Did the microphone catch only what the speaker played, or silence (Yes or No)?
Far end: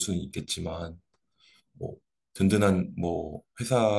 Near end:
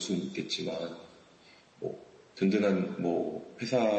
Yes